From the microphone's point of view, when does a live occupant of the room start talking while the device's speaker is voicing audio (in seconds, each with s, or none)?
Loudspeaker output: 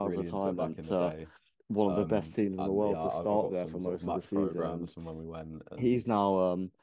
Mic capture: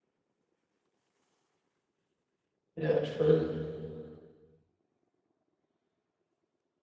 2.8 s